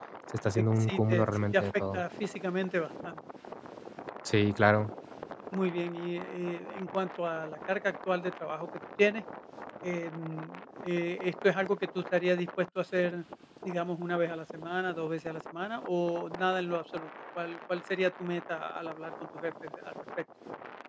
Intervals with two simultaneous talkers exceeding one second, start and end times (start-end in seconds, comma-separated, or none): 0.6-2.0